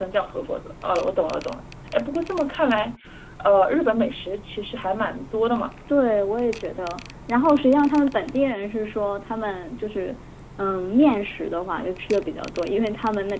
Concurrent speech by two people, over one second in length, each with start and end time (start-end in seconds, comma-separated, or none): none